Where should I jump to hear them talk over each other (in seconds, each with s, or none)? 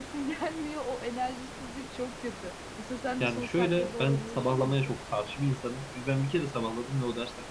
3.2 s